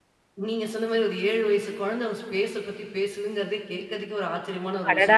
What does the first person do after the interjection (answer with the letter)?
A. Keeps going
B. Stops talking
B